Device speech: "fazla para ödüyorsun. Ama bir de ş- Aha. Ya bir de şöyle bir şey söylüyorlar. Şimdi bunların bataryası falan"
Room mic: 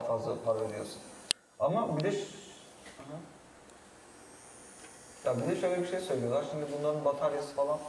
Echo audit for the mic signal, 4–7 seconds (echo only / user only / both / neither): echo only